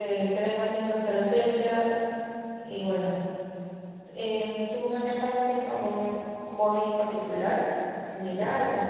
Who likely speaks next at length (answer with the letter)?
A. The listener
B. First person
A